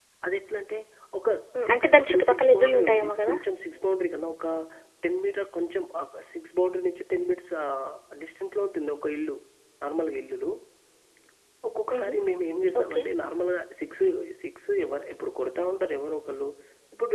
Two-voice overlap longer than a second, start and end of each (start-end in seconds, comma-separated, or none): 1.6-3.3